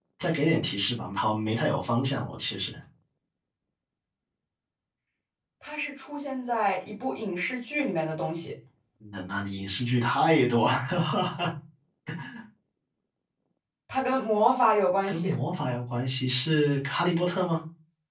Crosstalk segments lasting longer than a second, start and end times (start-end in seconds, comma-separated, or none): none